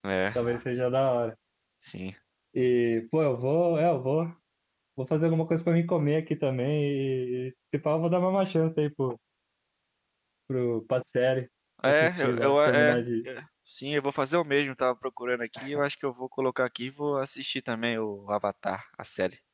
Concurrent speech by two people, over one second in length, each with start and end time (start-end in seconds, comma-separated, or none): 11.8-13.3